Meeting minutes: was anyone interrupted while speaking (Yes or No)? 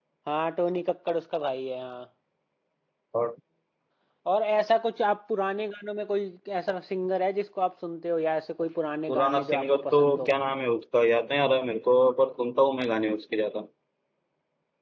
Yes